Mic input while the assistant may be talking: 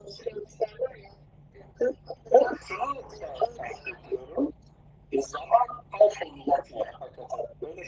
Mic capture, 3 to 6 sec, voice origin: echo only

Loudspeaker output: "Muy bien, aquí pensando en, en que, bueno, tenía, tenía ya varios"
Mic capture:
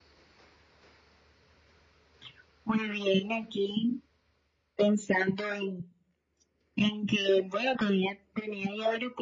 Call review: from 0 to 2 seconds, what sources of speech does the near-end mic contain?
neither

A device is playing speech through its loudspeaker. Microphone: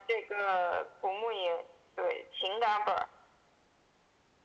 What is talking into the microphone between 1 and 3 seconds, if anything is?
echo only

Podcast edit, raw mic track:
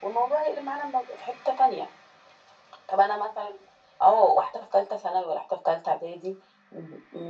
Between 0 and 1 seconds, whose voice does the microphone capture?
echo only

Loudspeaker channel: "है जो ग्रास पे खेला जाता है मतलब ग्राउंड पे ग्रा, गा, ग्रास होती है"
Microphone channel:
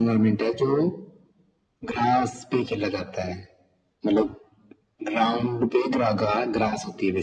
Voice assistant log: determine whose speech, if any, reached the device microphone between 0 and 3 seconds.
echo only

